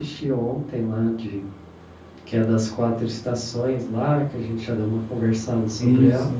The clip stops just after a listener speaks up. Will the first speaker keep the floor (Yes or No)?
No